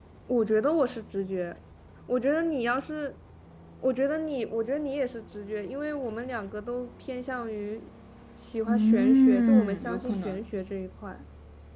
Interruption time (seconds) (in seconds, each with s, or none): 8.7 s